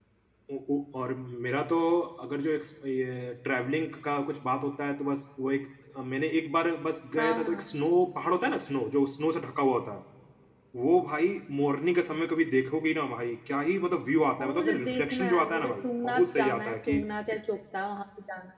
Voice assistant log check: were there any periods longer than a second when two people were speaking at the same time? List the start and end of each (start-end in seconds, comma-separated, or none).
14.4-17.0